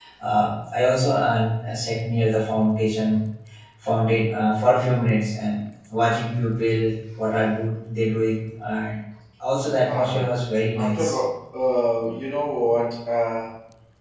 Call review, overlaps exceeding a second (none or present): none